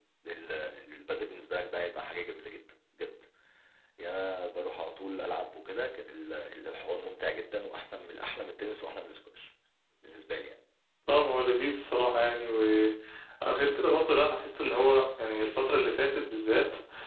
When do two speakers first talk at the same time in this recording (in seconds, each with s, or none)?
none